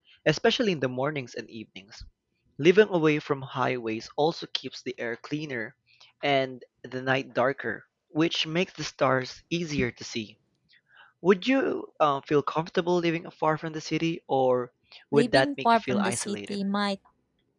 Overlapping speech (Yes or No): Yes